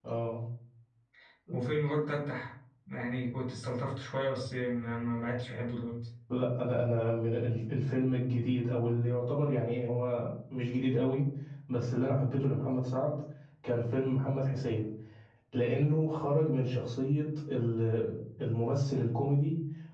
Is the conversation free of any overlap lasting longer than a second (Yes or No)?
Yes